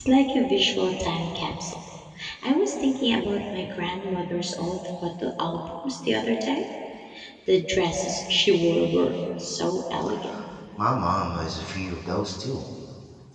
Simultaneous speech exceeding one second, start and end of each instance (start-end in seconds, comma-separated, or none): none